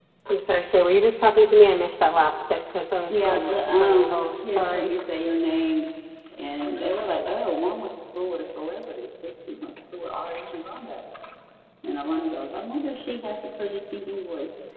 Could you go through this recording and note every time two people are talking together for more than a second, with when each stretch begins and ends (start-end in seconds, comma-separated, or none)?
3.1-4.9